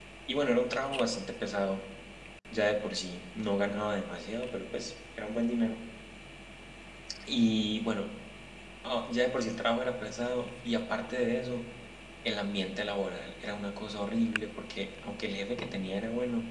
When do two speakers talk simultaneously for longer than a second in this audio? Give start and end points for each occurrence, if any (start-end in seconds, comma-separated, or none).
none